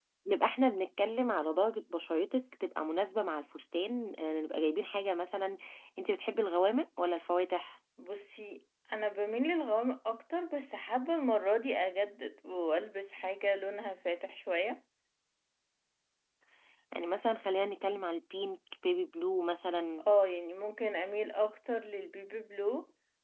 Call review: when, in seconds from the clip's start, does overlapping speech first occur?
none

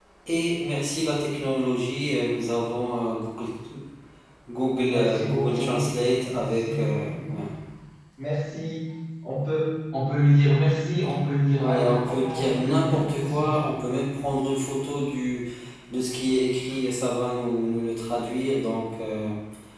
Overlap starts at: 5 s

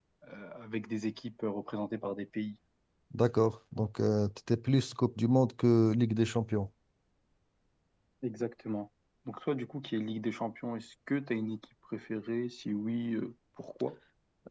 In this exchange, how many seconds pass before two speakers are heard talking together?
none

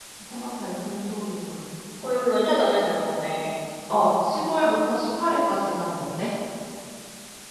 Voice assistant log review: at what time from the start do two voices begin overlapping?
none

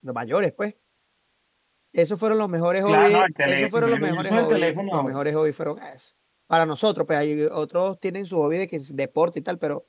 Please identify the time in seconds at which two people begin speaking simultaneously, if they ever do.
3 s

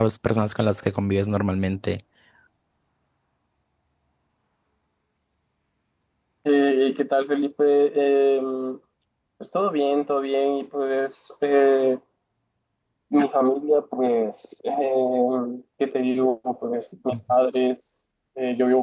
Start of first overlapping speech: none

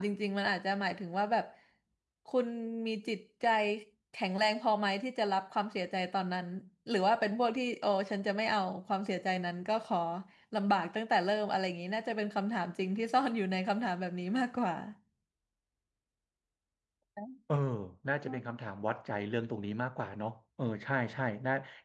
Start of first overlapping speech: none

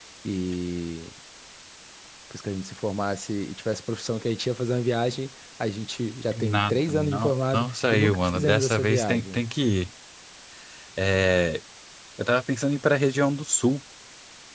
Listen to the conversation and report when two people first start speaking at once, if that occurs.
6 s

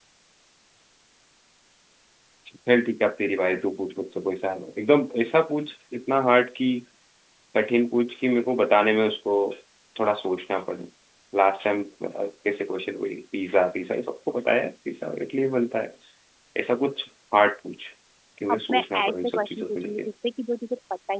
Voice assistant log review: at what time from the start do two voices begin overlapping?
19 s

